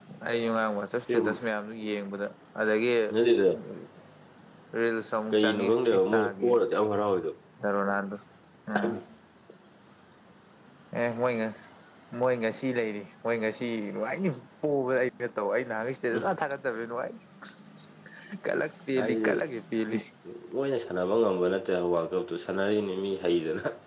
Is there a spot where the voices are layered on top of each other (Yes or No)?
Yes